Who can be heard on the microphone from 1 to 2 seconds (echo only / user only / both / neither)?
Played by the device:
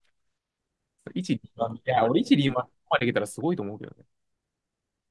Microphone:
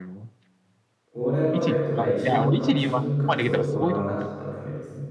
both